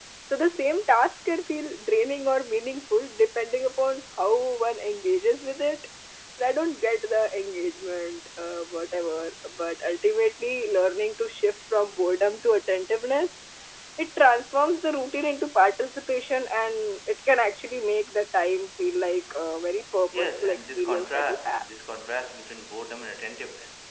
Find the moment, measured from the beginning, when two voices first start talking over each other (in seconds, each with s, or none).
20.1 s